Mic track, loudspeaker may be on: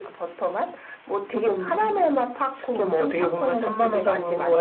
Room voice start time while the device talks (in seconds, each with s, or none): none